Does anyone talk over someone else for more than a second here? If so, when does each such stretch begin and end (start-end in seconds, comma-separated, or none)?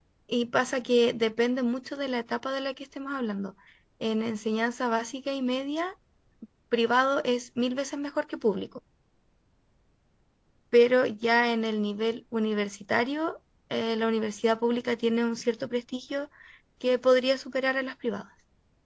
none